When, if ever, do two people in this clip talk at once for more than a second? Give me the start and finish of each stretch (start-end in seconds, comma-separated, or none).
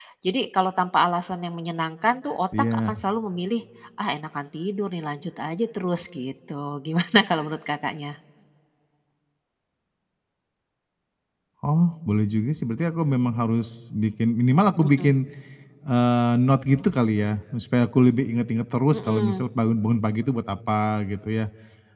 none